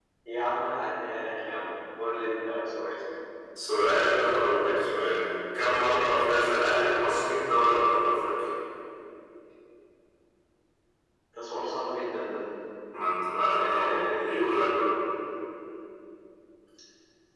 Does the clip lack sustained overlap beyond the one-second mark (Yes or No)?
No